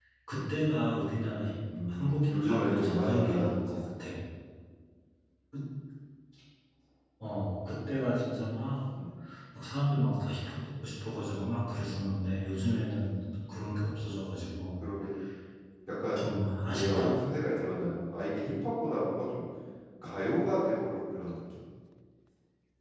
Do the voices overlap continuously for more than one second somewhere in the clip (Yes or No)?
Yes